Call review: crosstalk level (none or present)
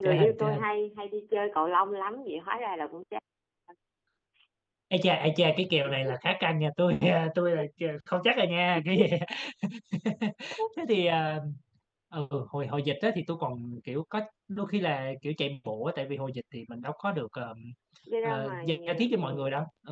present